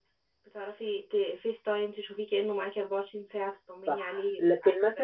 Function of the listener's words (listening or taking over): taking over